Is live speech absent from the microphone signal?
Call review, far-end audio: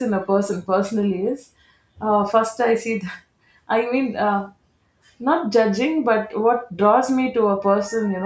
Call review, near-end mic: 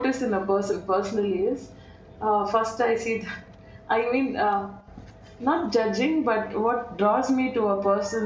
Yes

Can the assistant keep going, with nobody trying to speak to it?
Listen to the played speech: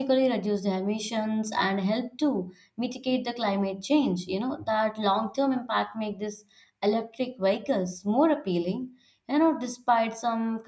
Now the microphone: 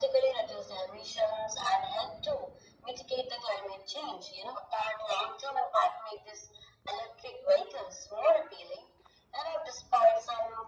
Yes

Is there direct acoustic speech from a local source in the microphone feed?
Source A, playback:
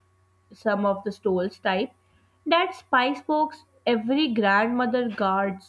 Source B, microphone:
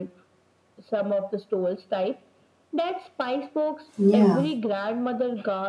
Yes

